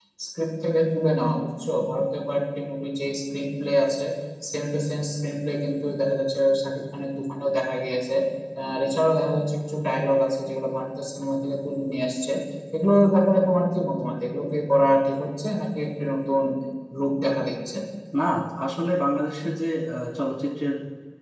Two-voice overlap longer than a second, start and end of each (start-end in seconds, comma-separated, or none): none